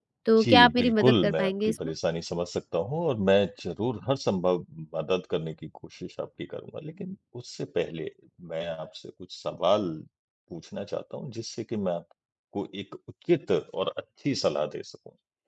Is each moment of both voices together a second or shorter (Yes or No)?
No